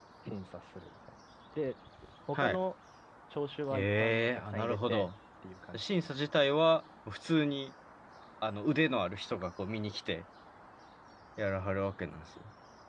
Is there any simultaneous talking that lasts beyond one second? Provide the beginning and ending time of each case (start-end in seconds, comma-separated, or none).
3.7-5.1